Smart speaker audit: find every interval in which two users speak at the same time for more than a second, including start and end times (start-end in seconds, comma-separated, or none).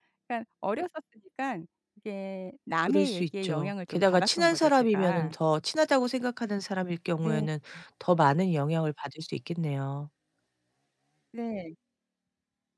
2.8-5.3